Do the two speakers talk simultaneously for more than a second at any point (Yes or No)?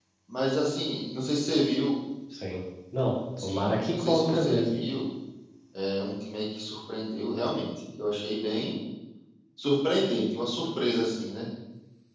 Yes